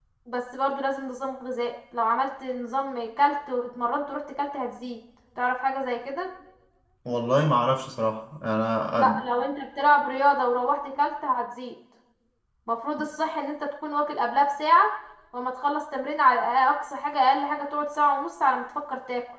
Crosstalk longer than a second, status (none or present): none